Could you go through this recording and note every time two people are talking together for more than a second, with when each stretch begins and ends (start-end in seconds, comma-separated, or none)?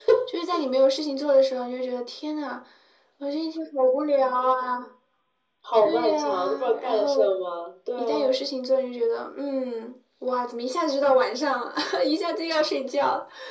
5.8-7.3